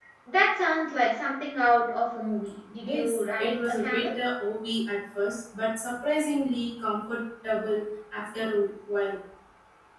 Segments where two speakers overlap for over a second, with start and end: 2.8-4.1

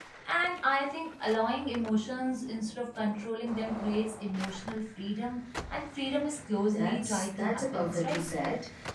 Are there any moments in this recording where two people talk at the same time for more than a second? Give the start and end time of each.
6.7-8.2

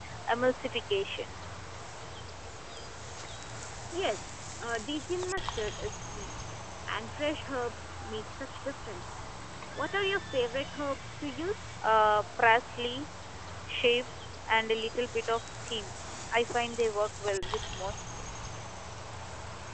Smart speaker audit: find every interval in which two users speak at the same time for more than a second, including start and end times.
none

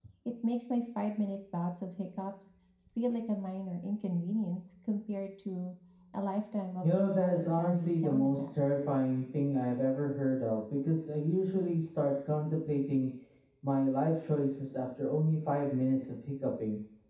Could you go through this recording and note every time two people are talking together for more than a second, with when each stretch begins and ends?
6.8-8.7

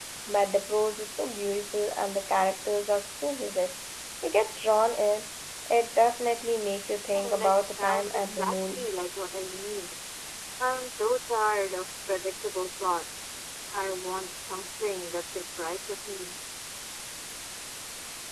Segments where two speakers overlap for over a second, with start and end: 7.2-8.9

